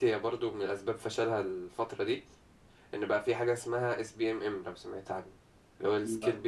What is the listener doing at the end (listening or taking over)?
listening